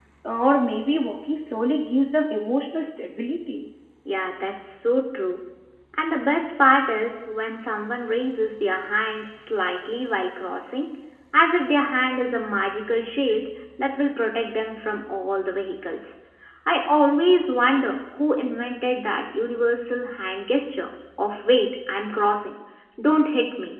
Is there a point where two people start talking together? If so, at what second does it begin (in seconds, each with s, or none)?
none